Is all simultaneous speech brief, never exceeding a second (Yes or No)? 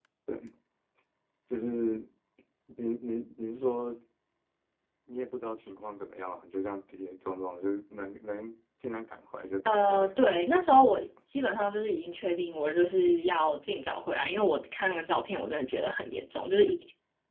Yes